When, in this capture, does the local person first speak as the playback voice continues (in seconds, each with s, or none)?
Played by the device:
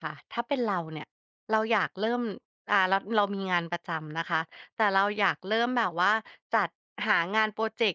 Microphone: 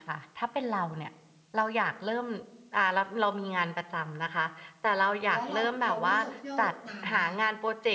5.3 s